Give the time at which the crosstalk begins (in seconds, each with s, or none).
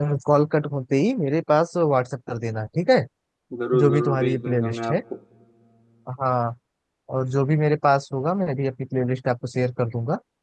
3.7 s